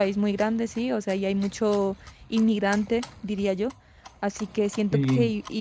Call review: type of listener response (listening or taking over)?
listening